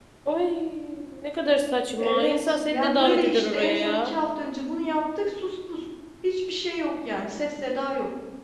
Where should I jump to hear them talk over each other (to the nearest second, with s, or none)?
2 s